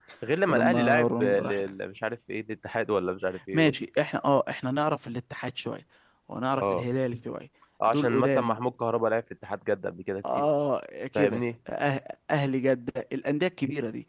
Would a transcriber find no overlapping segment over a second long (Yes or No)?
No